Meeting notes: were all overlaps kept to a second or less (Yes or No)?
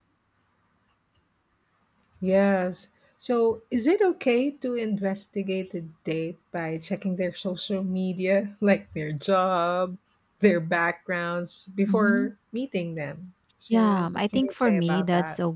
No